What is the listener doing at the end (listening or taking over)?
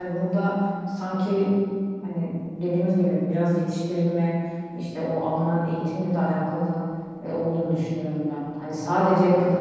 listening